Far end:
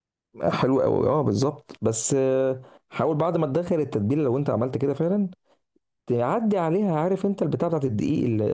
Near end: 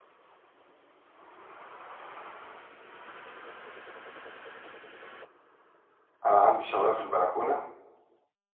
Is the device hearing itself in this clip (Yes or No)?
No